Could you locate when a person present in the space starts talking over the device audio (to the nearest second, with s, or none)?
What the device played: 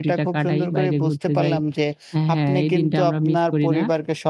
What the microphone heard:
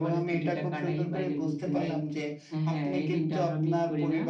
none